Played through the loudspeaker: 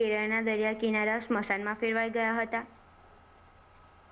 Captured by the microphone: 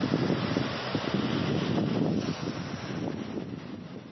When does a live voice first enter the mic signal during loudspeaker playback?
none

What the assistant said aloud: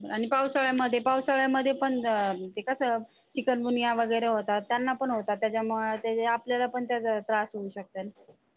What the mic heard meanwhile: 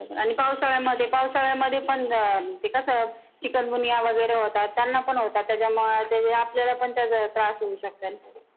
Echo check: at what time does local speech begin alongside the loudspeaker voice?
none

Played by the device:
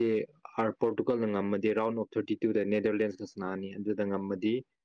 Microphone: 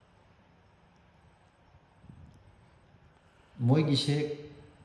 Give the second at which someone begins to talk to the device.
3.6 s

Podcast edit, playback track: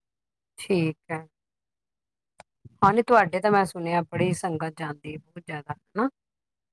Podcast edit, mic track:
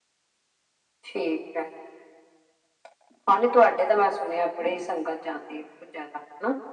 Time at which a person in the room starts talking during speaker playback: none

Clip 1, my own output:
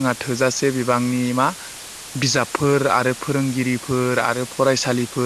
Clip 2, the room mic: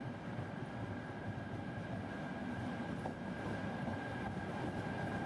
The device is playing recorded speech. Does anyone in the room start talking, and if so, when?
none

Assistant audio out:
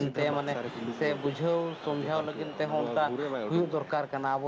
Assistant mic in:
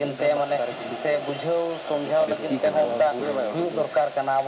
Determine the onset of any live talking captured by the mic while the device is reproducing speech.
2.3 s

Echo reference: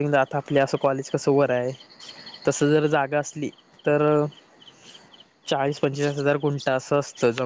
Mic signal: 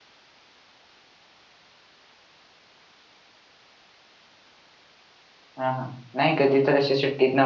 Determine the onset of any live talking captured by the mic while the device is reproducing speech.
5.6 s

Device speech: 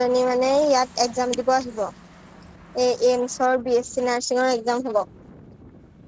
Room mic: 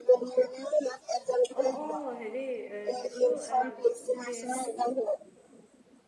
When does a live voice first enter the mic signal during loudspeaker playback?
1.6 s

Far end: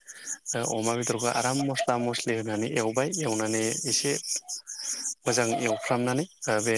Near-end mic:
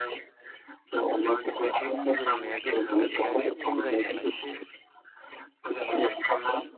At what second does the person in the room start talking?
1.8 s

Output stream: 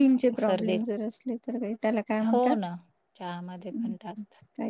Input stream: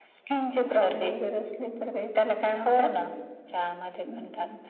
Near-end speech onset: 1.6 s

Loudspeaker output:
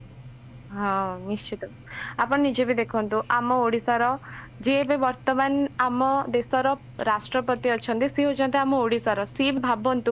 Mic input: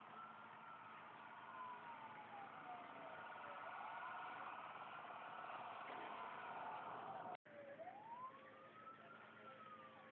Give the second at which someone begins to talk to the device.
none

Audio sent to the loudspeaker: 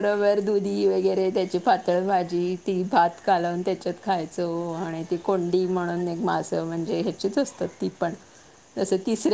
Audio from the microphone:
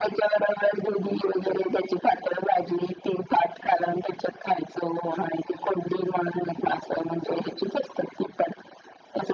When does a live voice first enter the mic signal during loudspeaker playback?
none

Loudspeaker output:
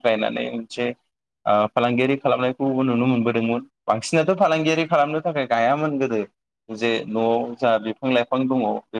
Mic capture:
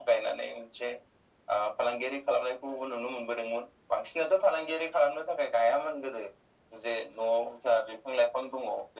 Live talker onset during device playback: none

